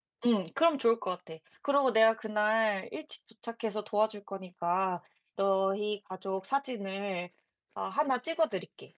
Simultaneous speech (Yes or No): No